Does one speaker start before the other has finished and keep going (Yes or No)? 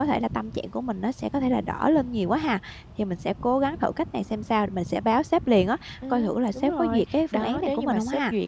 Yes